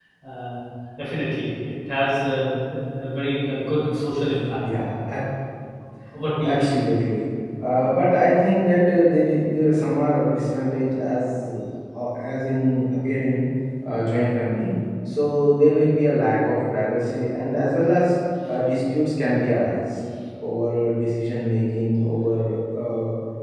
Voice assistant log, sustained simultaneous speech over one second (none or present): none